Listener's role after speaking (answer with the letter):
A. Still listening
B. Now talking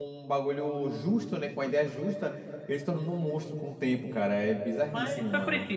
B